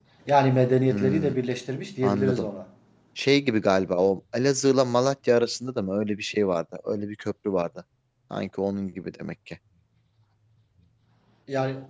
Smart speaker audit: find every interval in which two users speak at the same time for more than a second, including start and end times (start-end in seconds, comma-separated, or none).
none